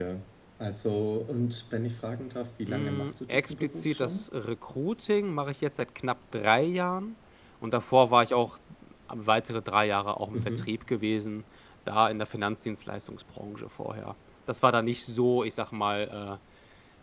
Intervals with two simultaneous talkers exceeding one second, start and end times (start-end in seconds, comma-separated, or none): 2.7-4.2